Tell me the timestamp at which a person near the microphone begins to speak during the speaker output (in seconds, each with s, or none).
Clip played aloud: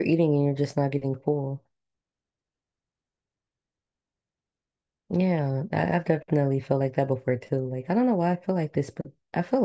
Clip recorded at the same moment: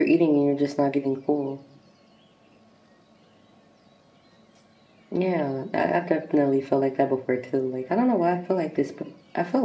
none